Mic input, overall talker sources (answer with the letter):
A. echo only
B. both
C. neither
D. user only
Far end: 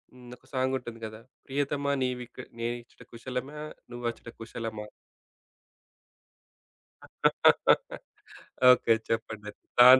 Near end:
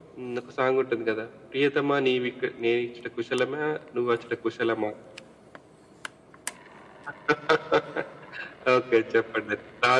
A